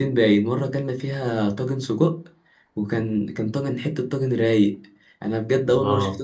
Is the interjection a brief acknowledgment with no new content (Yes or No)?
Yes